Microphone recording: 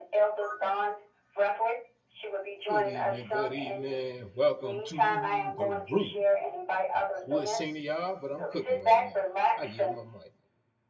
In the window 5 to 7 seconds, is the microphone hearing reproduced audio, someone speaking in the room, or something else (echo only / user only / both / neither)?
both